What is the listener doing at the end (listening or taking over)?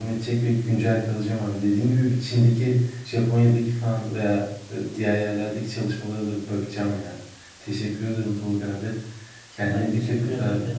taking over